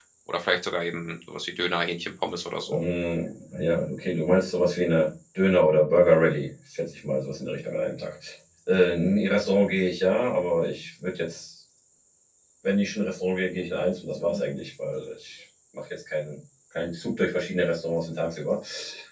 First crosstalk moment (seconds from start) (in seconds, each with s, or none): none